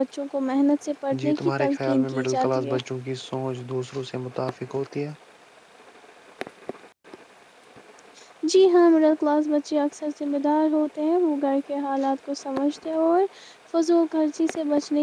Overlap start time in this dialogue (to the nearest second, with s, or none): 1 s